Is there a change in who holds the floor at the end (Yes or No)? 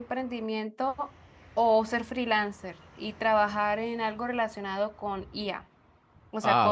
No